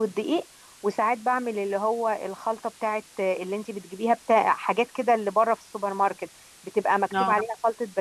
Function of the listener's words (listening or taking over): listening